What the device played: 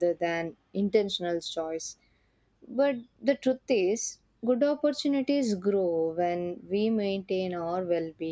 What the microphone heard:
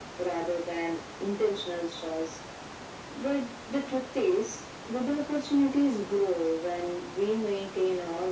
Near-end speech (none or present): none